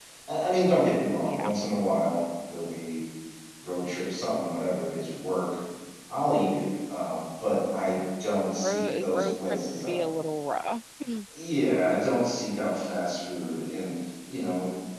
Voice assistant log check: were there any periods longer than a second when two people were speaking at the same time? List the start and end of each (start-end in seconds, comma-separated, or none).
8.6-10.0